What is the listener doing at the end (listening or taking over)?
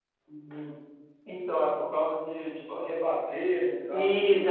taking over